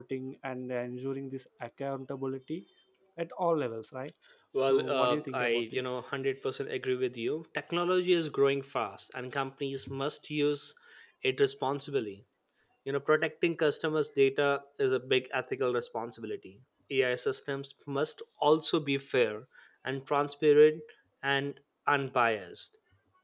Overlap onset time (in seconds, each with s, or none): 4.6 s